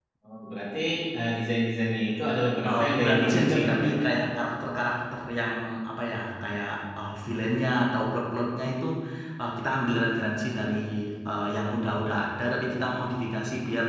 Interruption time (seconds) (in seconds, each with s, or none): 2.6 s